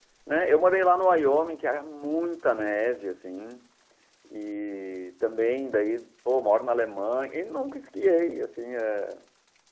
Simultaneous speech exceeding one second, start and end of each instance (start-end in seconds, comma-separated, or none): none